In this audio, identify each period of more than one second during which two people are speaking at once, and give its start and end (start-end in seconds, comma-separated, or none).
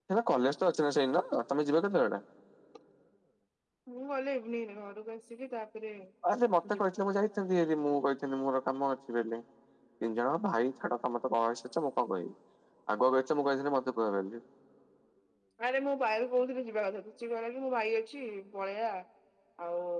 none